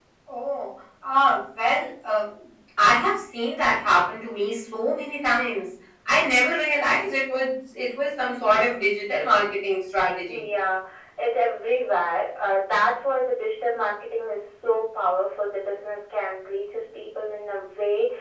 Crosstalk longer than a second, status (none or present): none